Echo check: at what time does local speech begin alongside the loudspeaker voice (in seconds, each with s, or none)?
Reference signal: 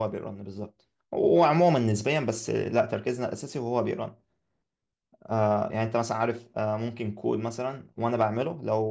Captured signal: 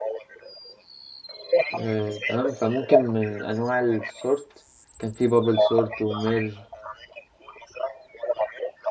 1.7 s